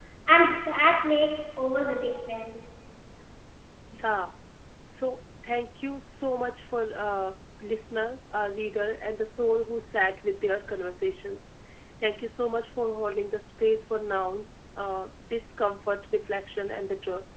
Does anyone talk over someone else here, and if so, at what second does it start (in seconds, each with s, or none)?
none